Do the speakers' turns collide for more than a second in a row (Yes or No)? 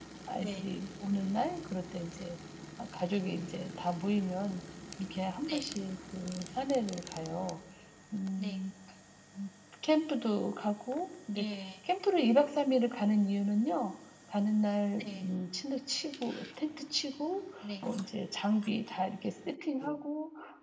No